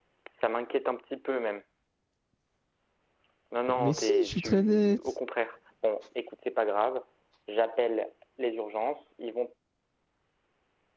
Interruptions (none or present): present